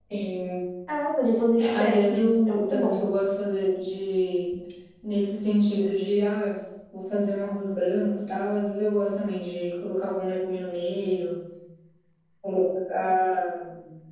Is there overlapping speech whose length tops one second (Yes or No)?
Yes